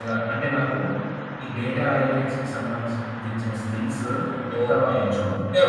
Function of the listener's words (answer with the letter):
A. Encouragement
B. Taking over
B